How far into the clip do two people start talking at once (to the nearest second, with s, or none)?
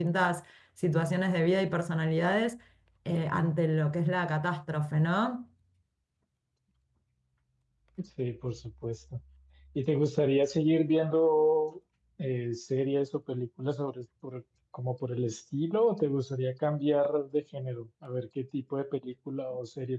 none